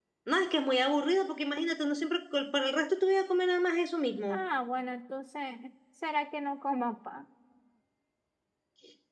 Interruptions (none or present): none